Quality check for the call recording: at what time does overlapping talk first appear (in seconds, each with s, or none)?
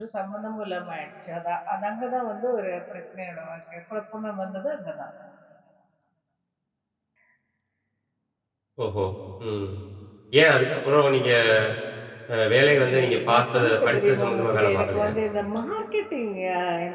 12.8 s